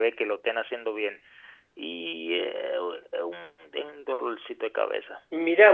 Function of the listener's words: taking over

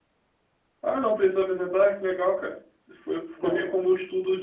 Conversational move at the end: listening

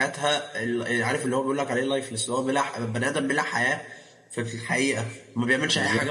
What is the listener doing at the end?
listening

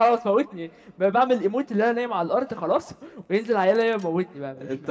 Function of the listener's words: taking over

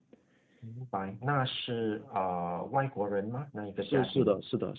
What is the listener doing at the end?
taking over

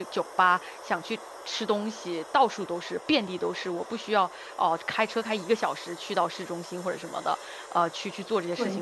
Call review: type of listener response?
taking over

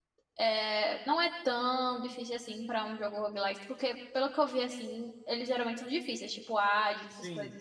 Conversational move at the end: taking over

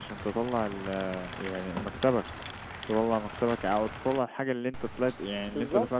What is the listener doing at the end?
taking over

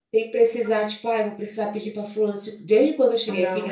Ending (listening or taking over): listening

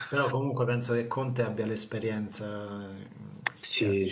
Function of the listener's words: taking over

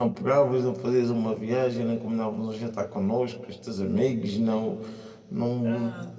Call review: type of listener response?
taking over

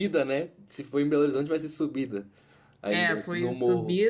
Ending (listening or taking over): taking over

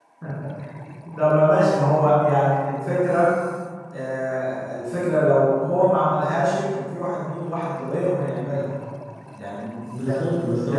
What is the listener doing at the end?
taking over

